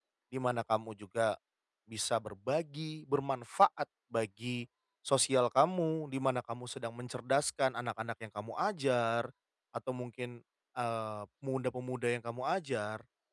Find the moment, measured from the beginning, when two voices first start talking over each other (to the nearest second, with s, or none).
none